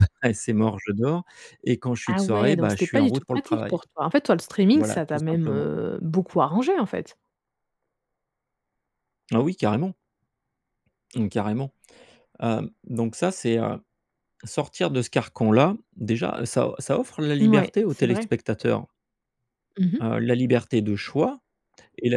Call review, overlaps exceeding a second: present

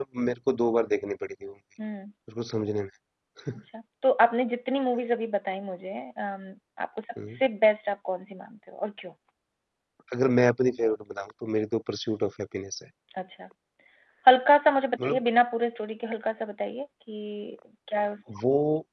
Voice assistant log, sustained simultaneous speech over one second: none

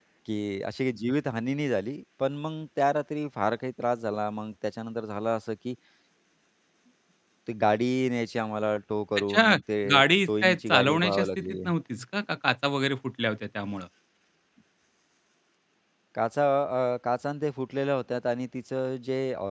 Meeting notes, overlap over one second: present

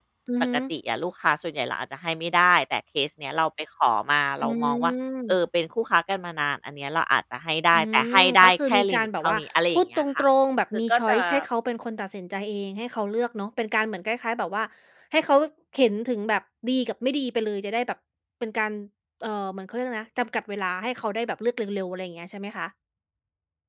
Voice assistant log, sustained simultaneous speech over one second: present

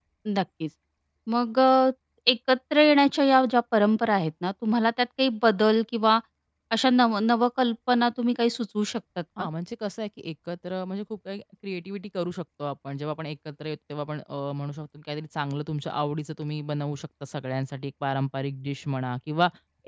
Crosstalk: none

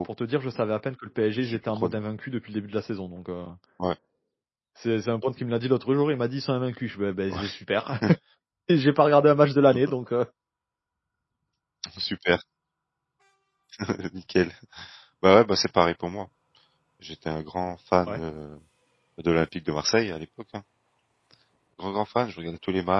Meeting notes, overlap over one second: none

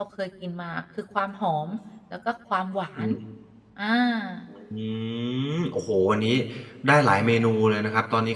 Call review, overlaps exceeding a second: none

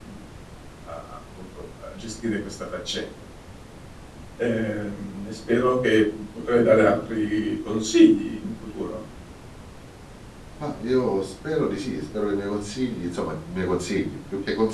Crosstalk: none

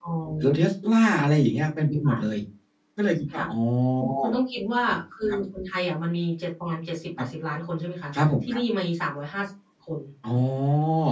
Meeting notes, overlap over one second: none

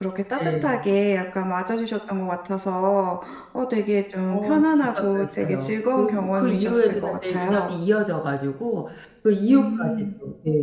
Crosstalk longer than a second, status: present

